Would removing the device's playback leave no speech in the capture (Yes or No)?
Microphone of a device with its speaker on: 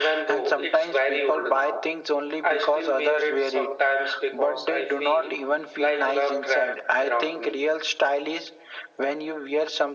Yes